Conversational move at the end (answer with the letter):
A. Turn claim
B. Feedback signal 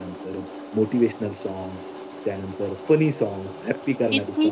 A